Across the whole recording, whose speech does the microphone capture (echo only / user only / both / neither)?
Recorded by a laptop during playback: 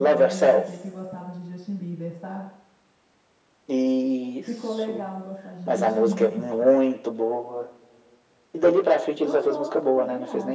both